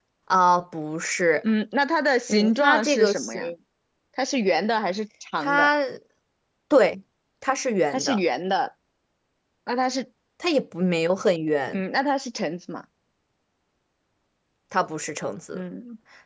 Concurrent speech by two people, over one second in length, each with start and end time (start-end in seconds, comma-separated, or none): 2.3-3.5